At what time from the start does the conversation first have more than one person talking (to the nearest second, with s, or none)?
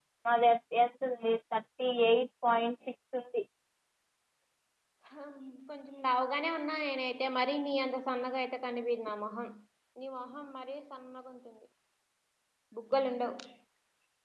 none